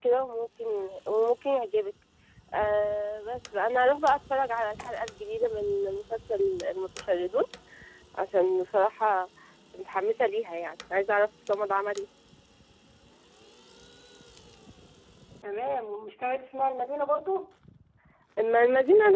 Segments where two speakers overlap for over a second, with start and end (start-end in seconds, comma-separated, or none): none